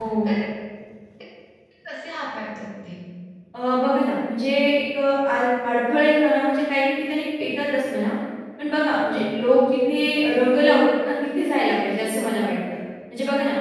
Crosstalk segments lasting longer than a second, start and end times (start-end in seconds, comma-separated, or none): none